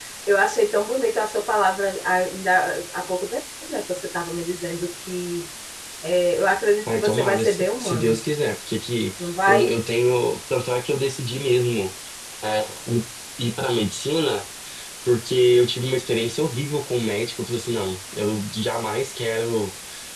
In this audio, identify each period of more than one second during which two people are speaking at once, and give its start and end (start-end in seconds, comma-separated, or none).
6.9-8.2